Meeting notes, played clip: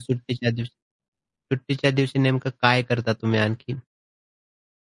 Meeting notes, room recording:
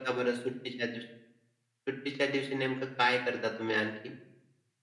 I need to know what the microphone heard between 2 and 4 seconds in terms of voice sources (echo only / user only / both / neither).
echo only